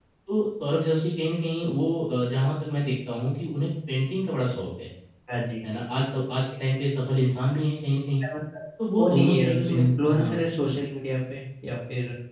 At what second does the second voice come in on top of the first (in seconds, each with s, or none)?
9.0 s